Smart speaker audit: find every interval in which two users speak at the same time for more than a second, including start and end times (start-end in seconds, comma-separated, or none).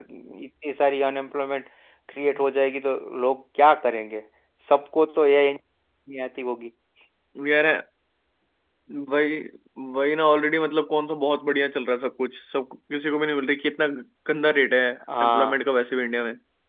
none